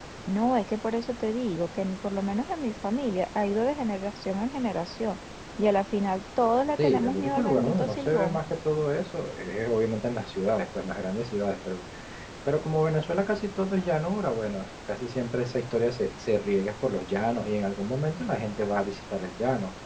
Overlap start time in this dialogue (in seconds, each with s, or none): 6.8 s